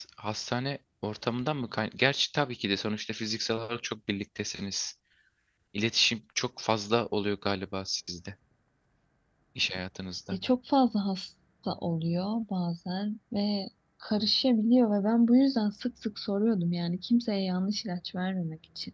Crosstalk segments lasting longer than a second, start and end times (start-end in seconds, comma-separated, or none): none